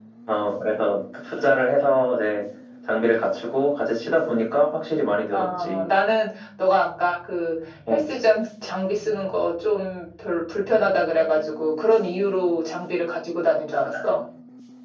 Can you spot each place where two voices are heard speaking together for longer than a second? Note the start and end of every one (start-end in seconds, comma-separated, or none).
none